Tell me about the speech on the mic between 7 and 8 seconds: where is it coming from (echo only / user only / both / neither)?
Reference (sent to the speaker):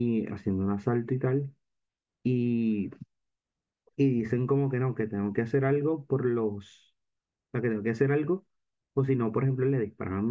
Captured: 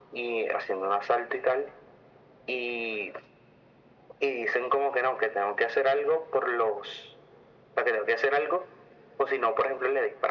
echo only